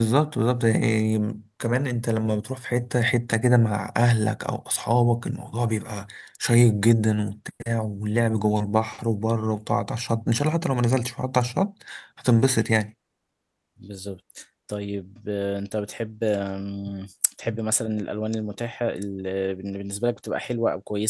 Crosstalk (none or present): none